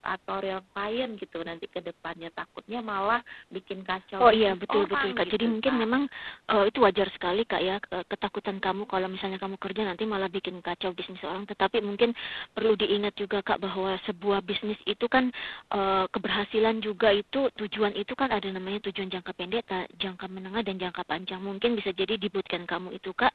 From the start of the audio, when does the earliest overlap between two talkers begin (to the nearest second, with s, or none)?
4 s